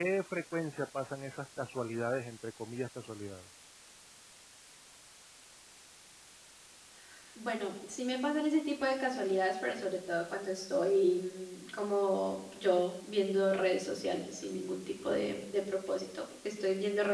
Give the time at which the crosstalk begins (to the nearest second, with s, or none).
none